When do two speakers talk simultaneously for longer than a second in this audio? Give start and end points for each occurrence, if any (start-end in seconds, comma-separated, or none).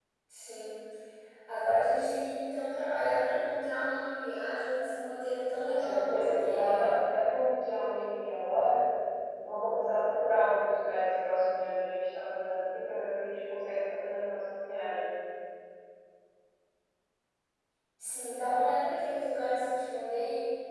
5.6-6.9